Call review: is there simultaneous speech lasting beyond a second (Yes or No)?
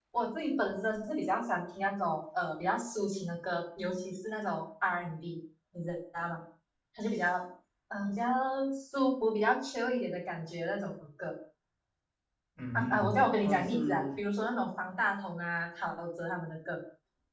Yes